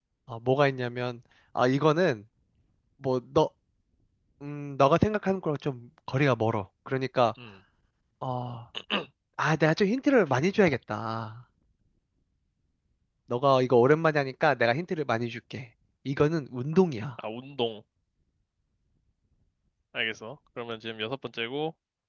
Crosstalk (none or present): none